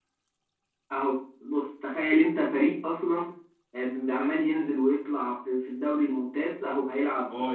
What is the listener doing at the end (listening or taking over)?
taking over